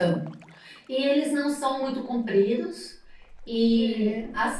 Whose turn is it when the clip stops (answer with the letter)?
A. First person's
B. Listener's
A